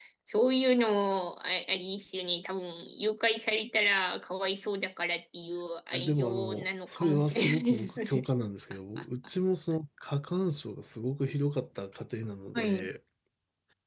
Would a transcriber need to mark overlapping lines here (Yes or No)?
Yes